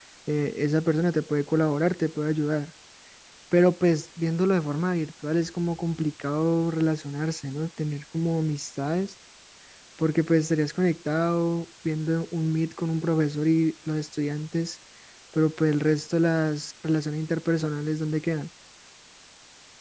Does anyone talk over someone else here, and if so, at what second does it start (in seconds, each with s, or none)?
none